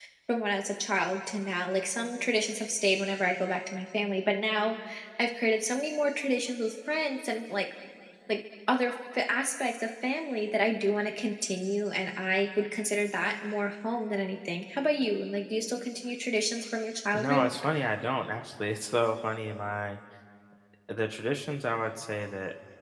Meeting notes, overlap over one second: none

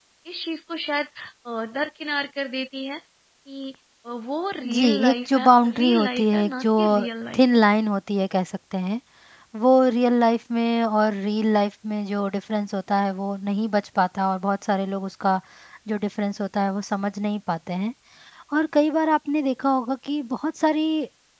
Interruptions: present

